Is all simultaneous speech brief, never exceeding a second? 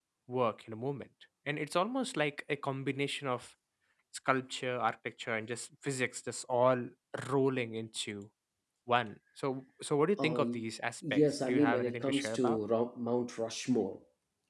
No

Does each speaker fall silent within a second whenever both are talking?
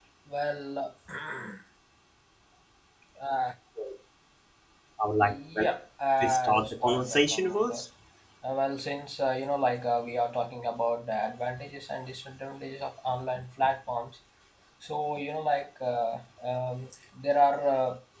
No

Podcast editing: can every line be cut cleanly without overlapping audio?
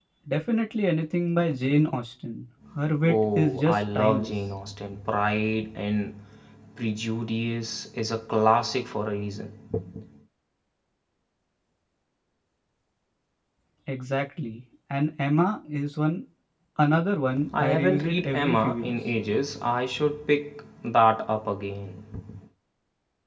No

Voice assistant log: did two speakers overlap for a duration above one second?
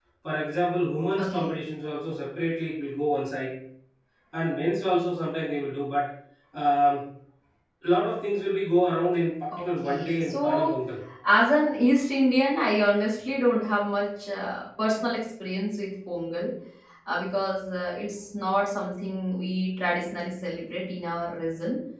Yes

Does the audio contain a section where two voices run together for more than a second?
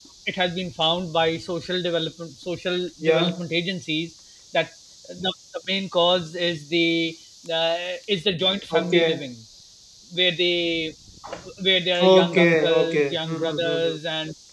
Yes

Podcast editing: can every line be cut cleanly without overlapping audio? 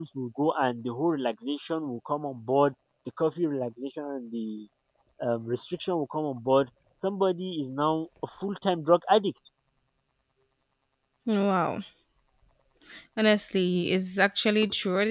Yes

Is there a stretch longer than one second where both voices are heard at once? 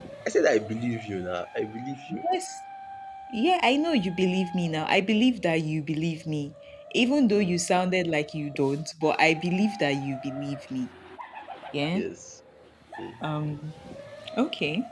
No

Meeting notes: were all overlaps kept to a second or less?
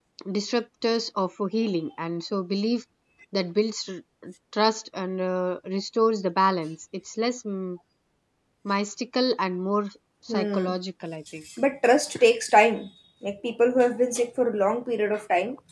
Yes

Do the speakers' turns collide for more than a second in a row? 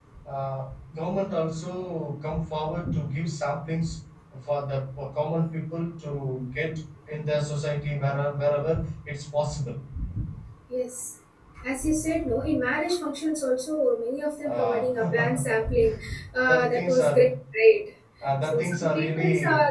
Yes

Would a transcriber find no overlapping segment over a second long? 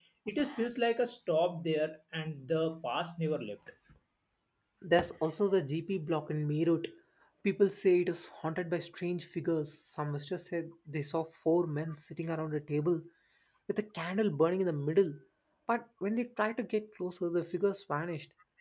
Yes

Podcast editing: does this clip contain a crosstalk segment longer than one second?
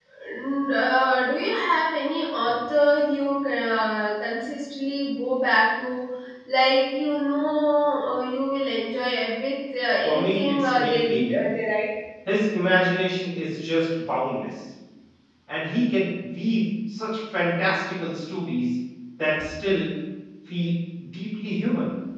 Yes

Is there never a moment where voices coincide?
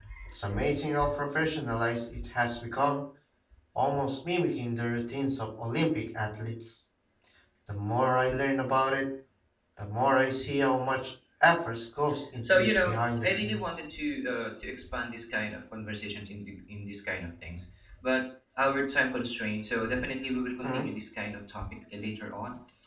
No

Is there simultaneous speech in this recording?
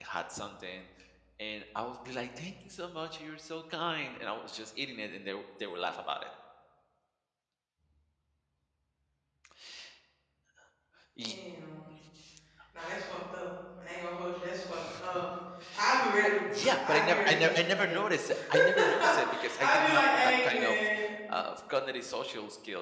Yes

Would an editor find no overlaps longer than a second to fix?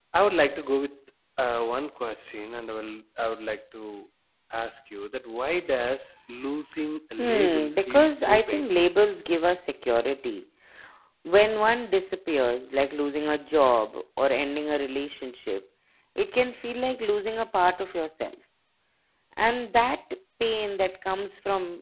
No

